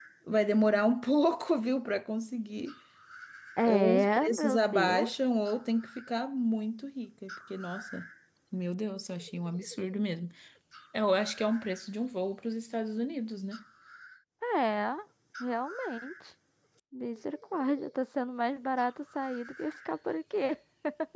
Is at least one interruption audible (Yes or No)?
Yes